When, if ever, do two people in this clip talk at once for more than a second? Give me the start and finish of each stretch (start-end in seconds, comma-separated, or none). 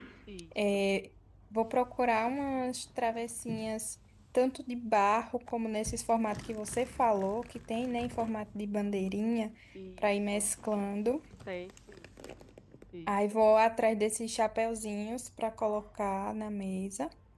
none